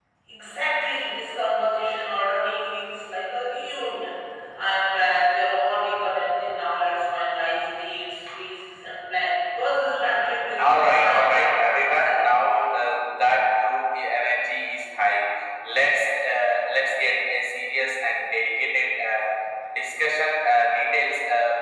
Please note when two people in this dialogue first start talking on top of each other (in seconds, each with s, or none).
10.6 s